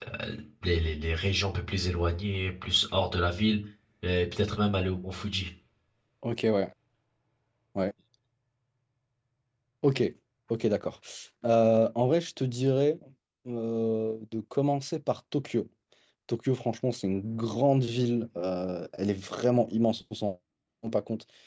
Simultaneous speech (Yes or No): No